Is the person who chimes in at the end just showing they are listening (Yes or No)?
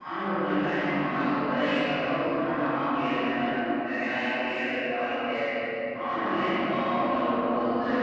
No